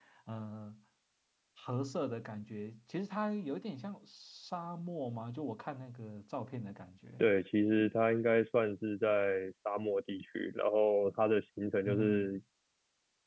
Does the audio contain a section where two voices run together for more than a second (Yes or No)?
No